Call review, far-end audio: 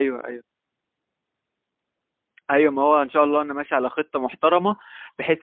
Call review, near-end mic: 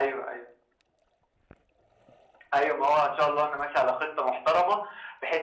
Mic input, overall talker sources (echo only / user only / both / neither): echo only